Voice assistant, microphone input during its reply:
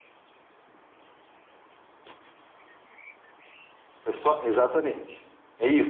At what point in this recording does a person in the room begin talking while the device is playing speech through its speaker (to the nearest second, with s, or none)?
4 s